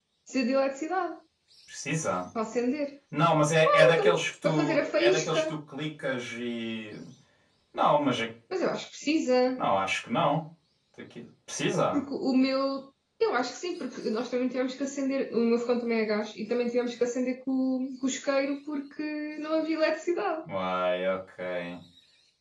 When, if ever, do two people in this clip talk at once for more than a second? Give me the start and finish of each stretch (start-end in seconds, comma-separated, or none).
3.6-5.6